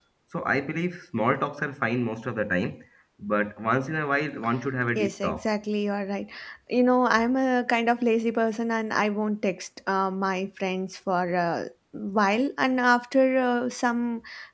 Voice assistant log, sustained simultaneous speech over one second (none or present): none